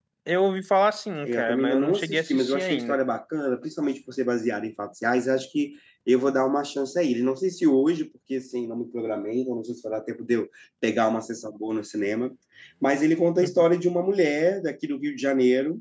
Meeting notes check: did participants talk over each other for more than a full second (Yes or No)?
Yes